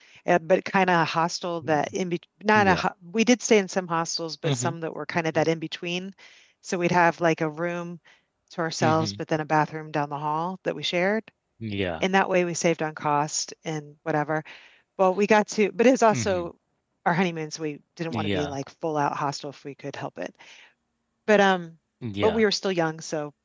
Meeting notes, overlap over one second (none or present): none